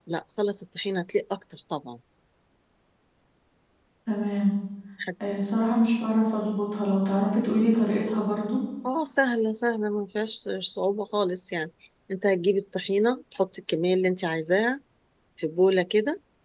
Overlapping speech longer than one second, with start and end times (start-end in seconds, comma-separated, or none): none